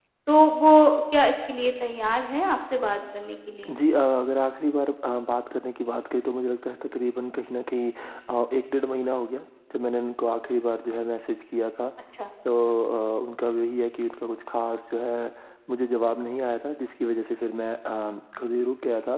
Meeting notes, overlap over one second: none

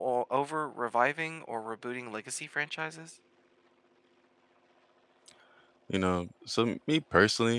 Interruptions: none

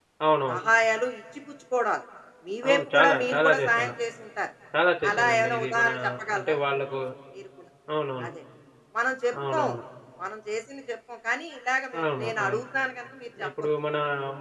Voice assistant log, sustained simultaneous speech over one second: present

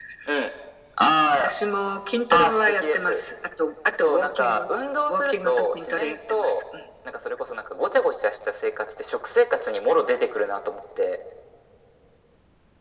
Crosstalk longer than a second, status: present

